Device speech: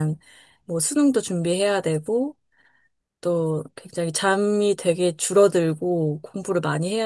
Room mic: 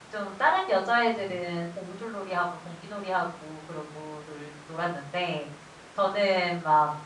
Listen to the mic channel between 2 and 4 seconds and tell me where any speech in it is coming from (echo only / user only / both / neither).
user only